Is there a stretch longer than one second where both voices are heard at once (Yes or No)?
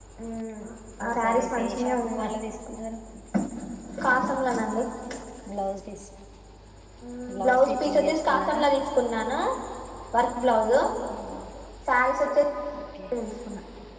Yes